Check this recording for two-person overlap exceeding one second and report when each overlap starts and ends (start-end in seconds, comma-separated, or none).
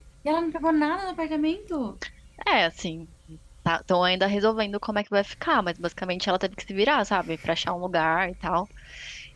none